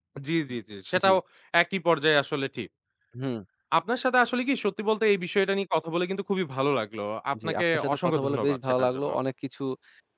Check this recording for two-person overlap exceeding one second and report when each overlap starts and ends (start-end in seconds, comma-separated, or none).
7.4-9.1